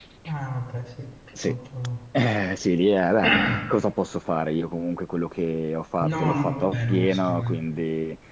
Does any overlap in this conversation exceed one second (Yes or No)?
Yes